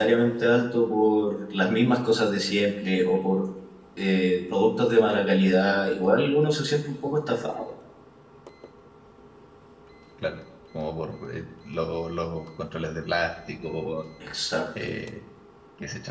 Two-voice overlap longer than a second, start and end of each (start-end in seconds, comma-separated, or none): none